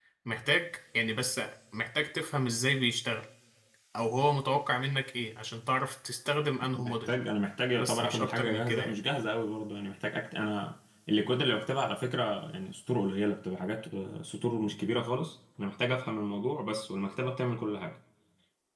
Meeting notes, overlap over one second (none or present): present